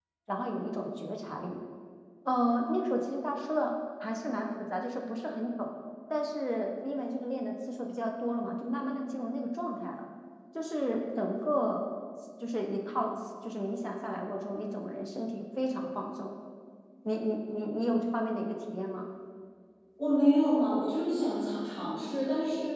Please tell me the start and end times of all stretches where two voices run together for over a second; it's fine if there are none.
none

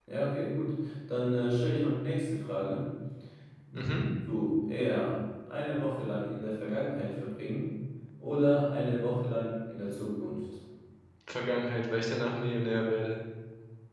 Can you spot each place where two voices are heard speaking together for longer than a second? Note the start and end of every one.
none

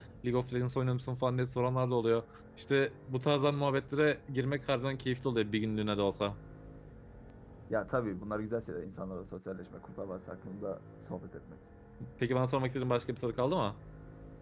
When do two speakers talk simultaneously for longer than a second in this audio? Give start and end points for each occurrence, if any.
none

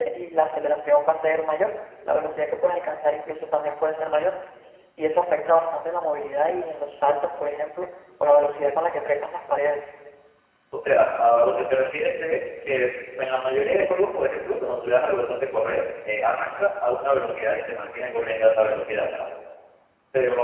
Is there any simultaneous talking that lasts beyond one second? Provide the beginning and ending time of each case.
none

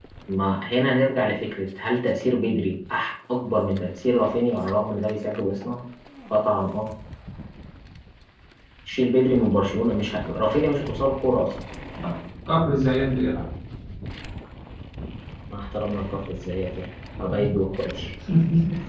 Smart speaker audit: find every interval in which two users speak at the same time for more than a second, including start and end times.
none

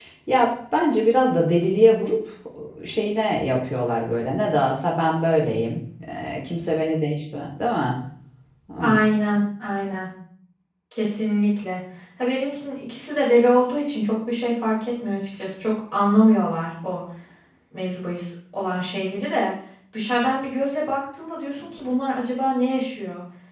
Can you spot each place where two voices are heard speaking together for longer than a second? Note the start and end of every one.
none

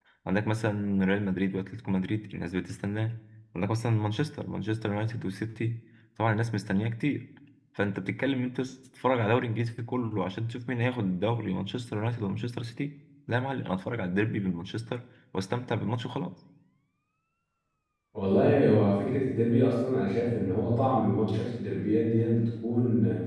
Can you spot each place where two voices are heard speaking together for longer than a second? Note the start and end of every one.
none

